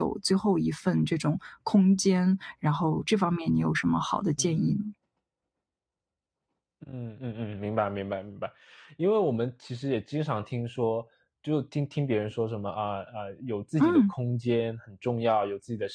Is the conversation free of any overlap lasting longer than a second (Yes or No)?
Yes